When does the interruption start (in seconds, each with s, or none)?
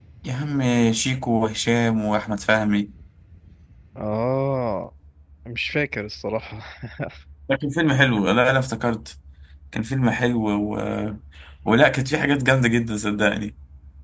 none